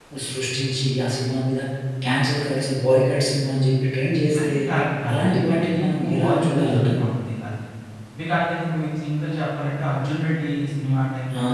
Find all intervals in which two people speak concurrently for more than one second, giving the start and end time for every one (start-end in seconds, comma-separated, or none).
5.1-7.0